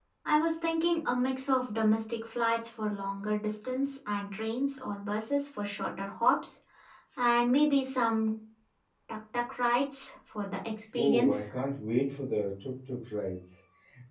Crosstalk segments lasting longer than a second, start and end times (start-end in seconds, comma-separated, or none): none